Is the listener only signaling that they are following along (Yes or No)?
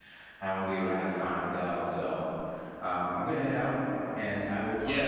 No